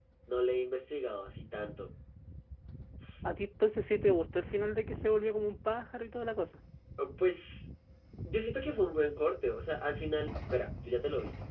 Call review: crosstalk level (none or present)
none